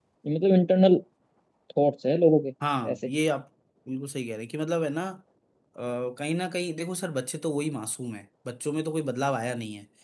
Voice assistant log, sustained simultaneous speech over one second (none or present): none